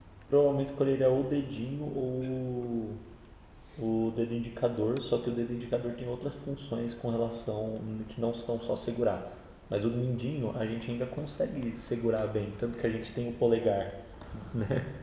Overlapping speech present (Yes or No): No